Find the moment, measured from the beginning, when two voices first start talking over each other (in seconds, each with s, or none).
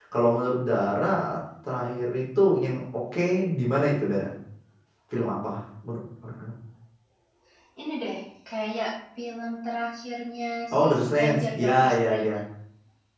10.7 s